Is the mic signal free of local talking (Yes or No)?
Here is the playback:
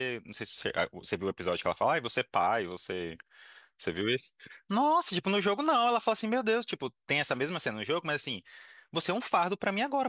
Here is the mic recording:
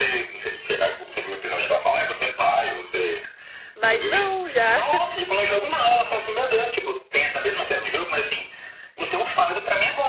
No